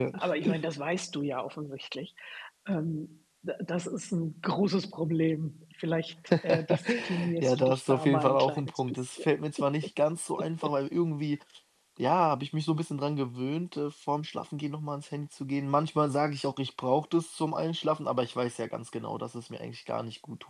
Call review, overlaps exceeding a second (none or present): present